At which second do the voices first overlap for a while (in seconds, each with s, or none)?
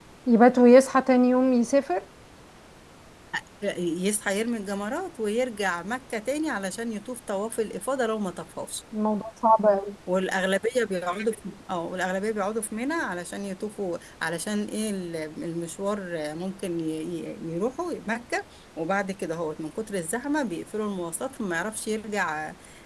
none